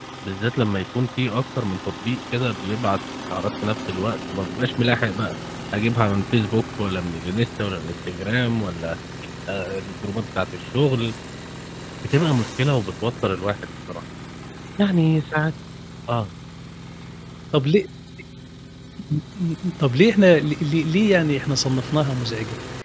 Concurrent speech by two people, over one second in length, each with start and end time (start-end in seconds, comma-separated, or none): none